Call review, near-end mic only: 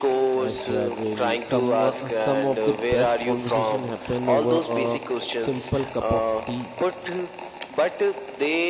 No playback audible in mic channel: No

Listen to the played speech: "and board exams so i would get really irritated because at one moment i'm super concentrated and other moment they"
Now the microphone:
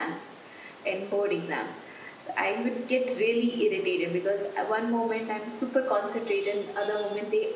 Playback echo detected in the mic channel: Yes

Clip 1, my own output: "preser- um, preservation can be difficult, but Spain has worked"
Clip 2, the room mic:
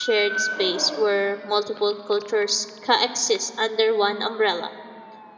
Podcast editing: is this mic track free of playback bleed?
Yes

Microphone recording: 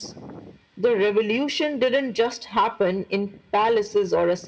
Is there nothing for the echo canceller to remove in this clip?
No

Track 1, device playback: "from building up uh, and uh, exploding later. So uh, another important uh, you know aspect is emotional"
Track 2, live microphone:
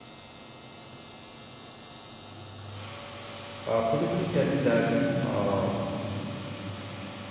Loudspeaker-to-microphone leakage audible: No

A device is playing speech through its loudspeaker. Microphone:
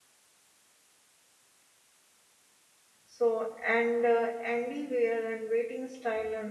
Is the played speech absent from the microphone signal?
Yes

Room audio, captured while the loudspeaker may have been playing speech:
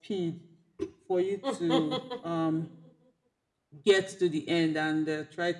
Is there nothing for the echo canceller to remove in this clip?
No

